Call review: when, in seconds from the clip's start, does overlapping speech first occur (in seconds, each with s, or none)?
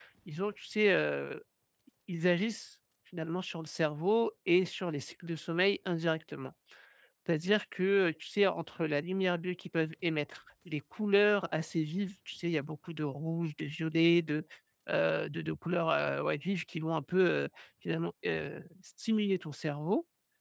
none